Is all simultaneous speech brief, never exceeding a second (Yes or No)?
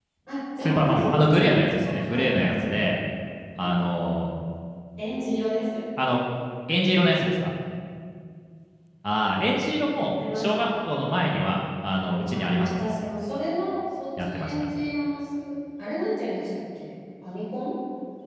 No